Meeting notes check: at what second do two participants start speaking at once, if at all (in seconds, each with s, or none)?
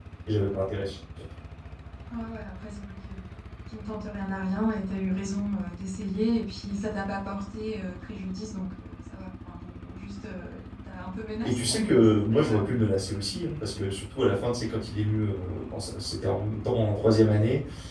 11.4 s